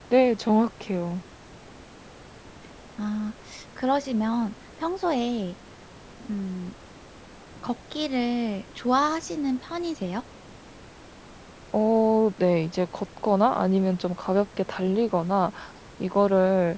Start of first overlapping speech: none

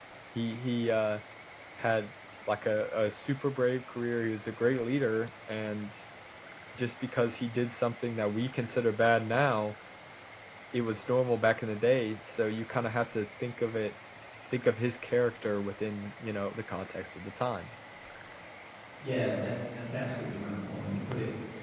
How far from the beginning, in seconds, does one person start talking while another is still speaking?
none

